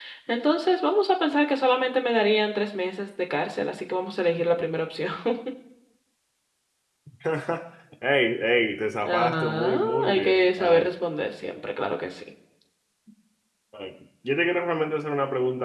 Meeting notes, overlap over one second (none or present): present